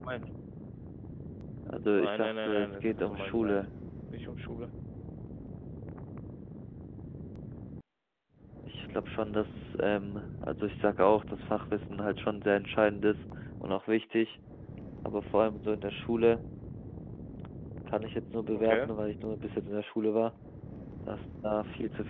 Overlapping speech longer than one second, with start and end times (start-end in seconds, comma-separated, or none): 1.9-3.6